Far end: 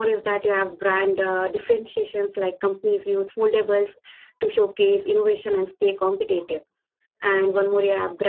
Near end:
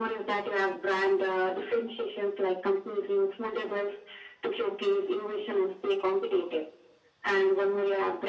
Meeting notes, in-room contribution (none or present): none